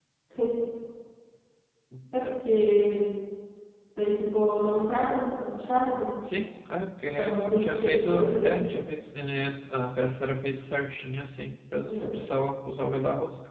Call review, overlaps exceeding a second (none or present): present